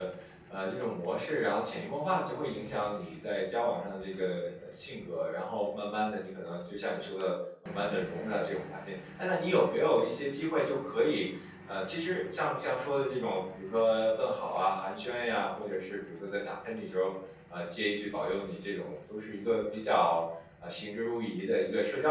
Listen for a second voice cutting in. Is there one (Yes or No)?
No